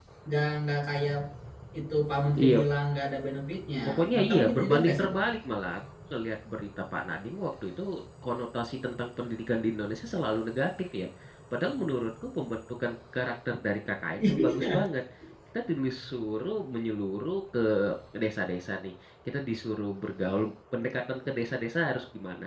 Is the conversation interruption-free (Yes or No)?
No